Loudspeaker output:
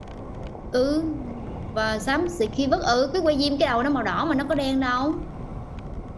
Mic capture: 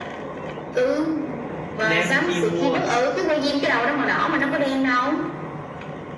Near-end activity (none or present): present